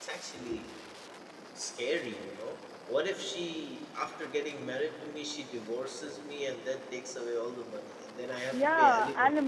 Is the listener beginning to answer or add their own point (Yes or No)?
Yes